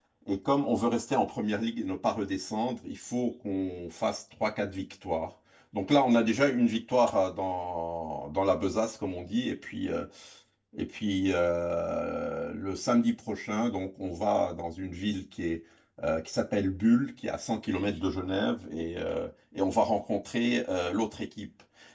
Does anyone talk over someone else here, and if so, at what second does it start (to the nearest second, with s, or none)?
none